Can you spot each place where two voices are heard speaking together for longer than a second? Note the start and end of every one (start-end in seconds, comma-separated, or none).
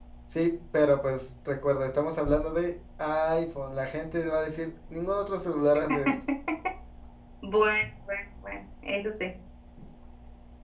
none